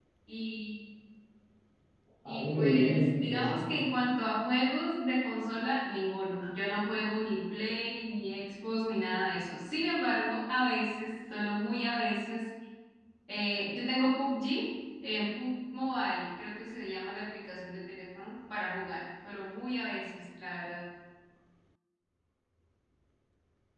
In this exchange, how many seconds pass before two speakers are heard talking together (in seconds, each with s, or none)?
2.3 s